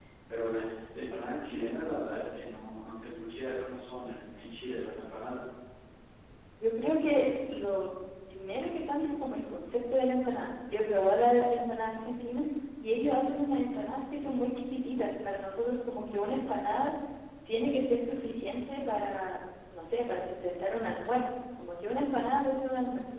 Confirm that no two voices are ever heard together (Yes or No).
Yes